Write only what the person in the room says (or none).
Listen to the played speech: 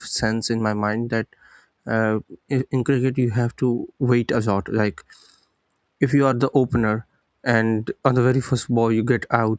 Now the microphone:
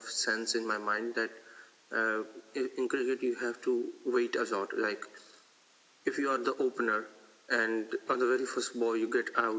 none